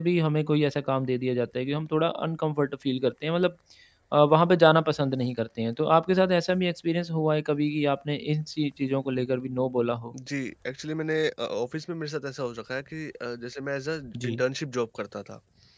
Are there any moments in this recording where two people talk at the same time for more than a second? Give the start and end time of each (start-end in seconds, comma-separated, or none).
none